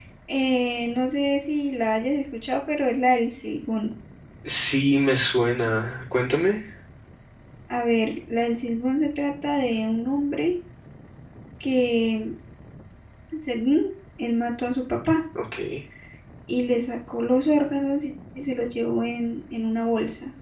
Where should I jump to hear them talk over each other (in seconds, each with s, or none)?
none